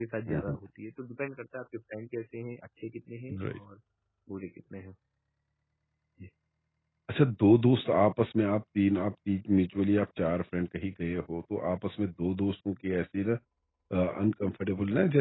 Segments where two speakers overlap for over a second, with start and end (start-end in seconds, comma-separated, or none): none